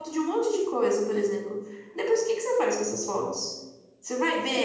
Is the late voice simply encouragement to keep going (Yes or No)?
No